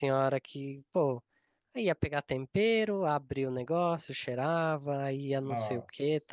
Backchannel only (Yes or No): Yes